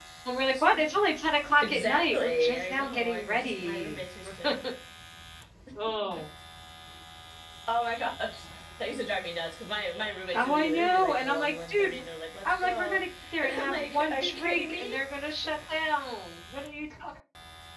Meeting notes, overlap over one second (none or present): present